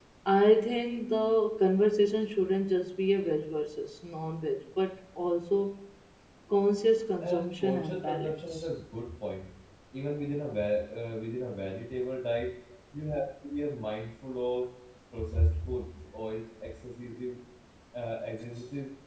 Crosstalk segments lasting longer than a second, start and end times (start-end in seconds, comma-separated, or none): 7.2-8.5